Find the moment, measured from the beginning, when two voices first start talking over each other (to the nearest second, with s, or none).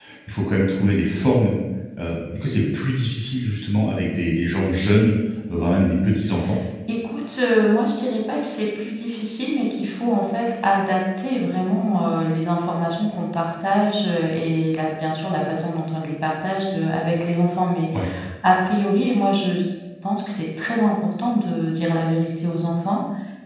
none